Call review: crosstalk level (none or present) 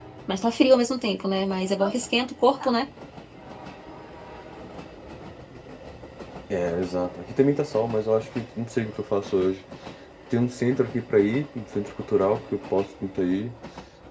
none